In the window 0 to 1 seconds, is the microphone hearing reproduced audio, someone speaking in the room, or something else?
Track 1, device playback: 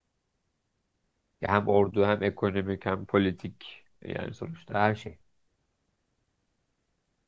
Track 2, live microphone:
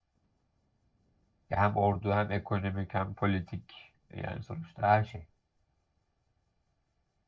neither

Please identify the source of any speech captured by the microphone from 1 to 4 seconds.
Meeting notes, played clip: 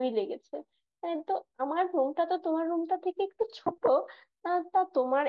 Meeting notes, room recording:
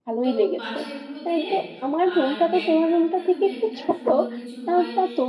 both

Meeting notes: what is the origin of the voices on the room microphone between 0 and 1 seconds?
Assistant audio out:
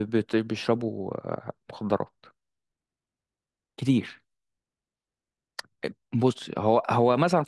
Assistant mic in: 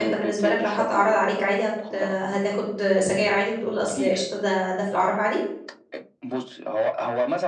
both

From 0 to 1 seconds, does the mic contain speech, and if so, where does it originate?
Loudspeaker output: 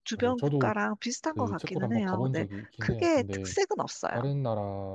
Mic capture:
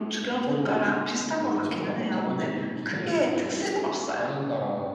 echo only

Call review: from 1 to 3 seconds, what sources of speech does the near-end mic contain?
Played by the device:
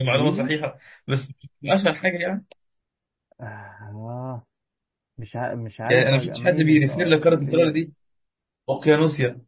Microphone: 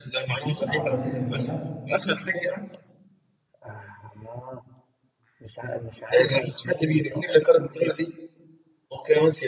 both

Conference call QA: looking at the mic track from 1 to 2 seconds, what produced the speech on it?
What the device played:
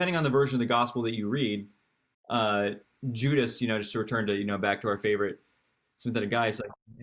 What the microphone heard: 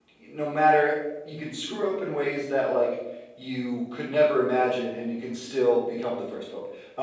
user only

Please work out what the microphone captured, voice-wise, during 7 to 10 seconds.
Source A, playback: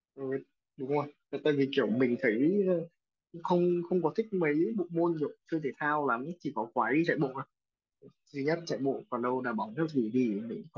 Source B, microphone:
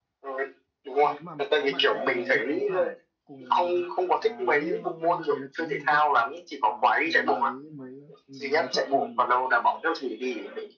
both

